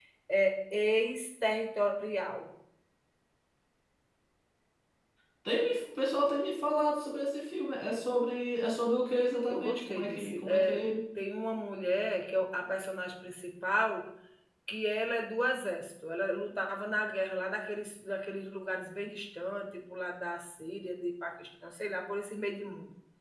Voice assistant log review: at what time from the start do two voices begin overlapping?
9.5 s

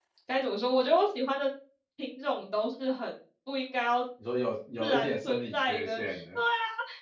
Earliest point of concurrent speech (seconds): 4.8 s

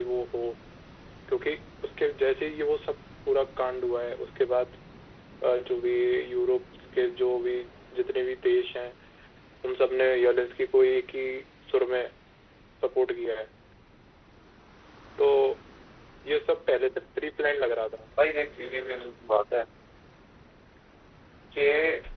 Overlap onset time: none

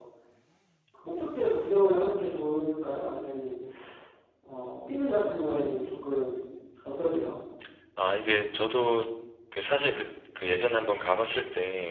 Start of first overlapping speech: none

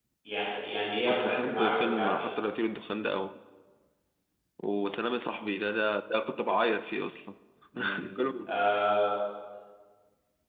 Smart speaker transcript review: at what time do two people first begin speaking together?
1.1 s

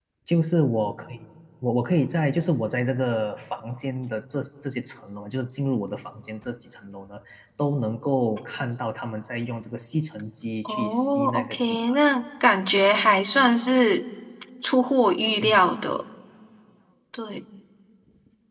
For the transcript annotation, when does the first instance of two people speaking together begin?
10.7 s

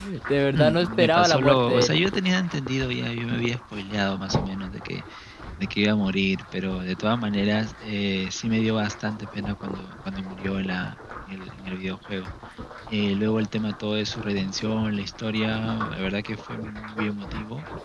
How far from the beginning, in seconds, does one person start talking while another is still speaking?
0.5 s

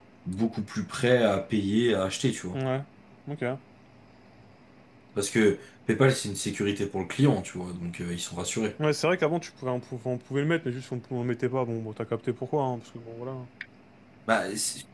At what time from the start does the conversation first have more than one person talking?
none

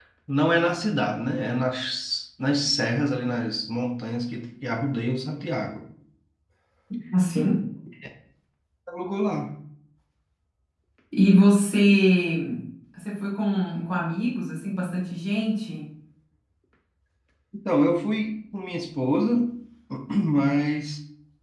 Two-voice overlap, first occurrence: none

